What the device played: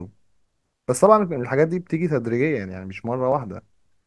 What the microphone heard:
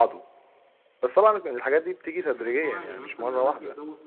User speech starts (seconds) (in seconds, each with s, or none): 2.2 s